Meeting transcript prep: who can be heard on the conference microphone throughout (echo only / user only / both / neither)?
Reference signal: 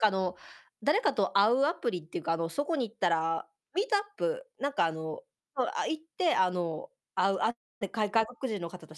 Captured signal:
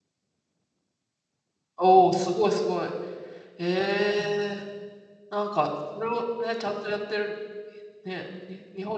user only